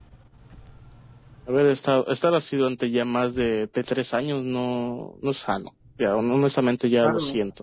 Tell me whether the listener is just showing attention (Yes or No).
No